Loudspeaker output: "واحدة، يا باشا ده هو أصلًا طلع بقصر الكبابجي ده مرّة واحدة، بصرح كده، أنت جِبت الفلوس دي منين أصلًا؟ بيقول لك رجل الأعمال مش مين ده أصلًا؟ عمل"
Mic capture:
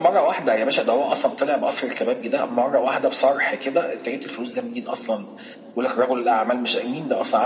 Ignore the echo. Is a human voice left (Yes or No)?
No